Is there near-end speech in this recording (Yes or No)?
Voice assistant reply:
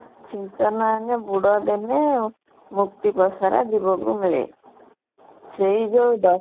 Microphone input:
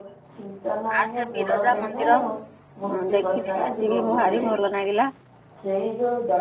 Yes